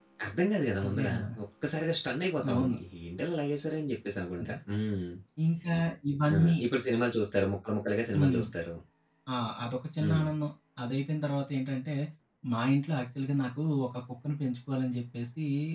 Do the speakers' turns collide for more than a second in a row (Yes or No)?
No